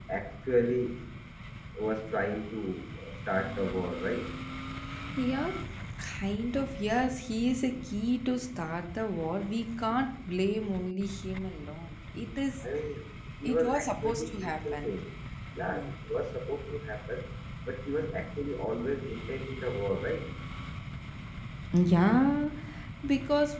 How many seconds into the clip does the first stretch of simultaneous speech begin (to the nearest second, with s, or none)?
13 s